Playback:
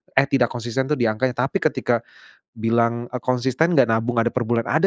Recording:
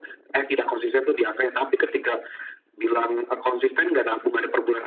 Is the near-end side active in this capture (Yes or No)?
No